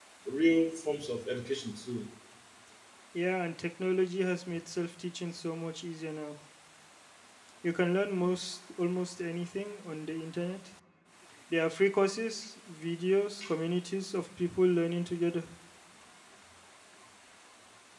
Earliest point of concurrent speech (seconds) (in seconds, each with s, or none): none